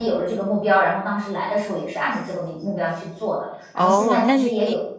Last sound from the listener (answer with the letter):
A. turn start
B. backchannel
A